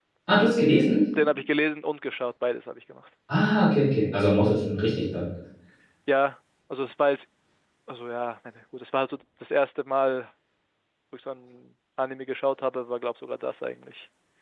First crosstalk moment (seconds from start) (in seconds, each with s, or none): none